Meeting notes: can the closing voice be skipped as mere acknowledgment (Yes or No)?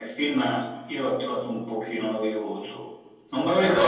Yes